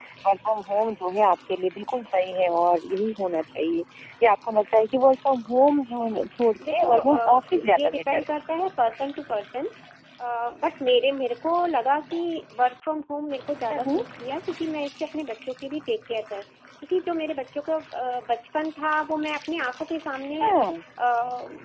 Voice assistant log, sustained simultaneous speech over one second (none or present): present